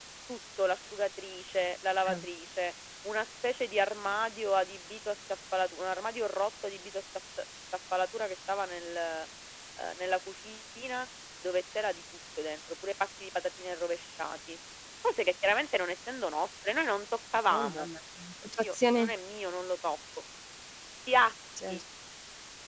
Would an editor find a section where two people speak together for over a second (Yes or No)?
No